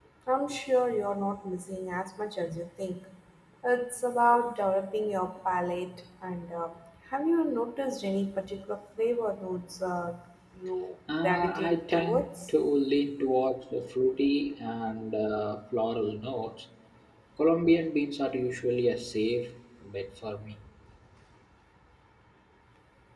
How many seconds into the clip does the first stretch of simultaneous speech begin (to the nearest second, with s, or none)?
11 s